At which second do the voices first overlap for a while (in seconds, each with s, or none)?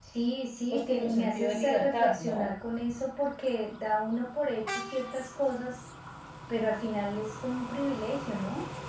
0.7 s